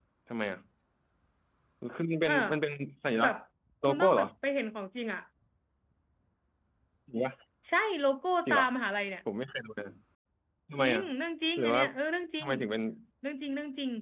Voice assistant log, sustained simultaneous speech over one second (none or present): none